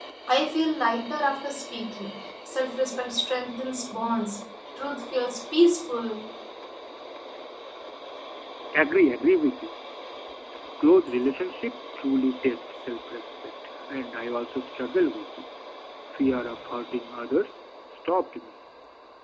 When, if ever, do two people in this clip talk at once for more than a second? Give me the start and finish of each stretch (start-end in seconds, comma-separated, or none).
none